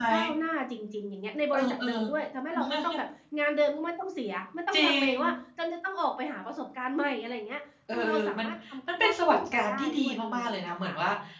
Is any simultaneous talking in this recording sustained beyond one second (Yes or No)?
Yes